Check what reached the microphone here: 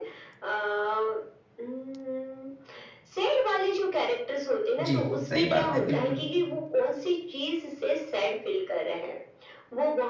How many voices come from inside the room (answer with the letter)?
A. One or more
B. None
A